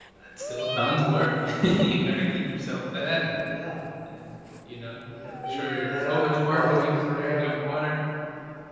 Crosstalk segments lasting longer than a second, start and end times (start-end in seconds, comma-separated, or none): 5.2-7.5